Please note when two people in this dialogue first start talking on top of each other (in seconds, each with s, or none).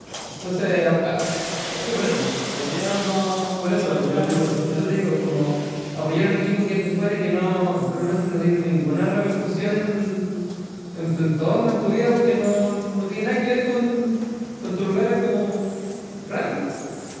3.6 s